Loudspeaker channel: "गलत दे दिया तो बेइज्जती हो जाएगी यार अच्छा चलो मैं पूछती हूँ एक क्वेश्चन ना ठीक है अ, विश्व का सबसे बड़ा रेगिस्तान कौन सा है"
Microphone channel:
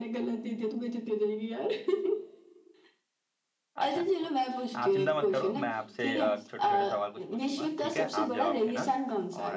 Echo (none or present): present